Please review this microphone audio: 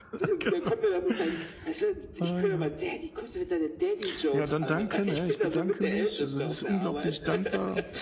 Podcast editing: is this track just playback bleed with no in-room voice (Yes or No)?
No